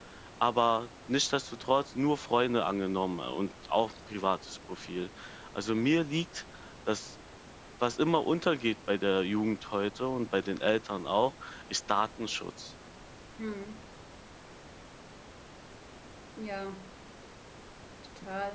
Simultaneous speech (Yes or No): No